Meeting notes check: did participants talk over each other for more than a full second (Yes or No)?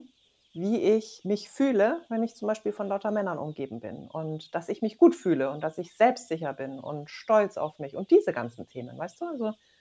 No